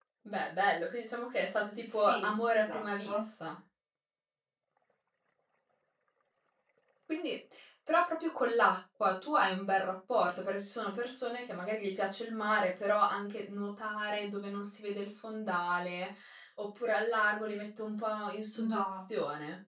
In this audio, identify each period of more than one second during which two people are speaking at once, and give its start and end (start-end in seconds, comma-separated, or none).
1.9-3.2